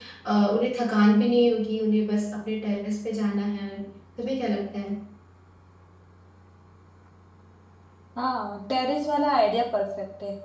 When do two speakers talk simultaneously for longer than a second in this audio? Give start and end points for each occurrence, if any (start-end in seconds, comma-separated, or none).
none